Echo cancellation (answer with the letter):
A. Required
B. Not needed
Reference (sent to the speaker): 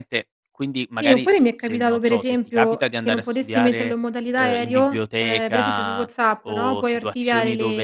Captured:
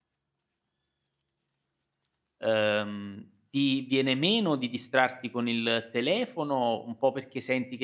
B